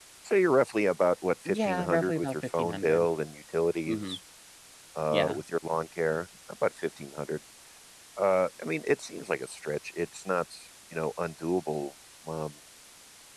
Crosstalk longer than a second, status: present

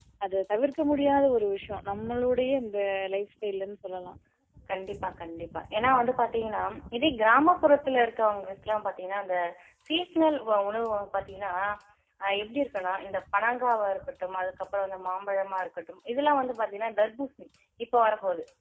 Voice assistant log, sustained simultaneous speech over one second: none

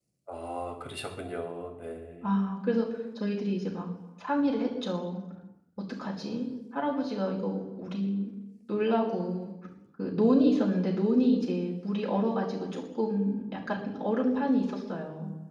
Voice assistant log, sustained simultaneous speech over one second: none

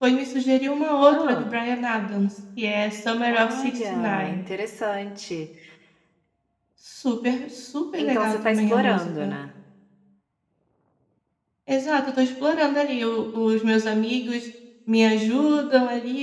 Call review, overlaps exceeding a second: present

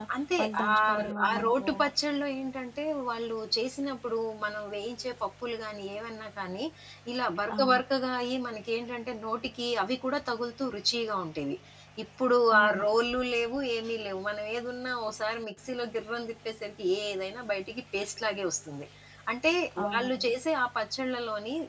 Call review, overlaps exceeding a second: present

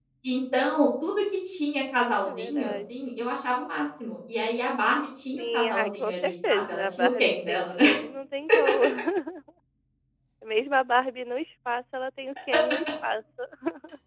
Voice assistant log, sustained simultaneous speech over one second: present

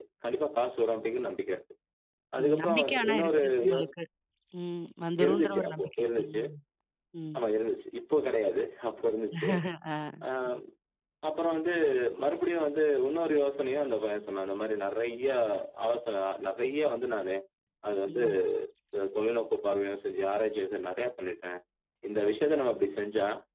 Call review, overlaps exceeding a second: present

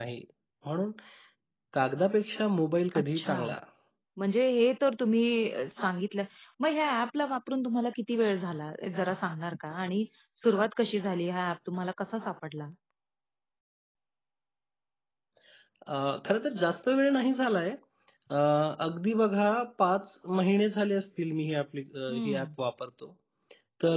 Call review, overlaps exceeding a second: none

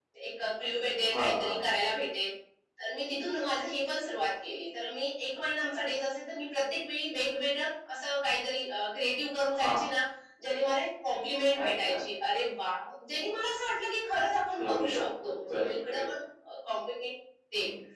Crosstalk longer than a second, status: present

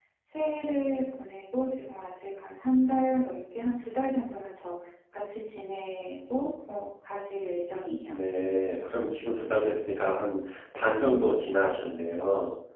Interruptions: none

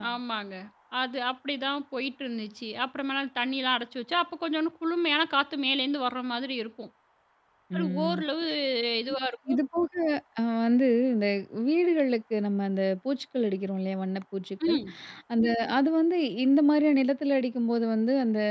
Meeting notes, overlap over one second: none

